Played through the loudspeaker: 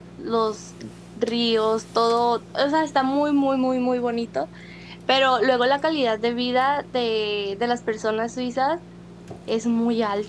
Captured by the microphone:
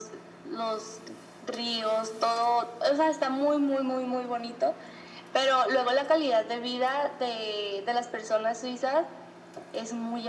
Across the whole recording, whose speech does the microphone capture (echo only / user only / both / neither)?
echo only